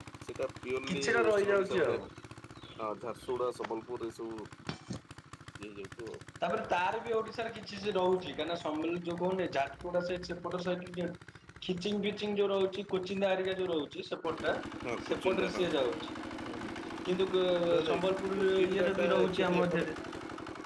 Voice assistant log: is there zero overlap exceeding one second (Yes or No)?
No